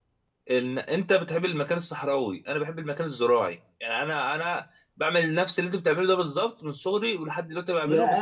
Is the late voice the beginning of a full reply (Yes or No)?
Yes